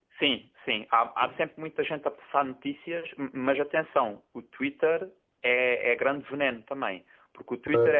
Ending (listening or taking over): listening